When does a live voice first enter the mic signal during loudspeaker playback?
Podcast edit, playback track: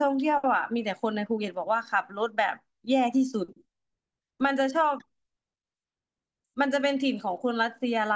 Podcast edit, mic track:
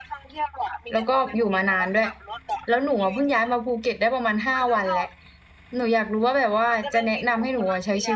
1 s

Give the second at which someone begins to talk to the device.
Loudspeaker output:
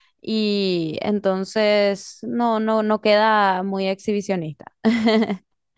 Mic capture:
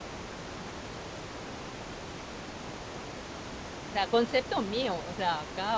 4 s

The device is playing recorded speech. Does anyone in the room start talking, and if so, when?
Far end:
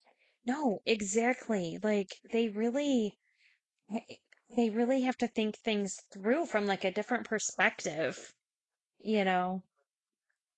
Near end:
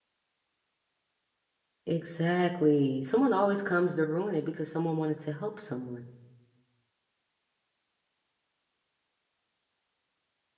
2 s

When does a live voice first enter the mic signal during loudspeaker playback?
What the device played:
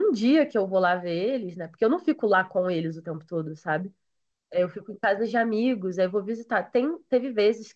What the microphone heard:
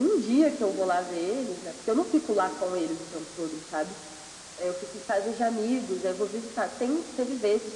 none

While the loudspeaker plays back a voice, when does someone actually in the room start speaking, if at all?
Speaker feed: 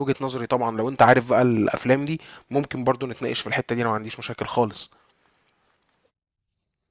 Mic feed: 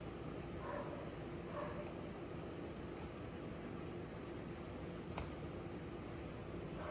none

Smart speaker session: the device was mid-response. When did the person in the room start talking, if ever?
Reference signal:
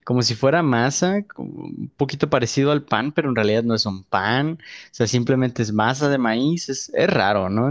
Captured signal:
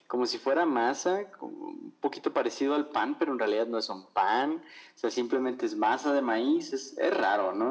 none

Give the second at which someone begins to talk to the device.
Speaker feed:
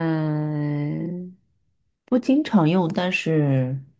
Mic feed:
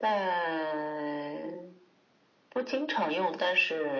none

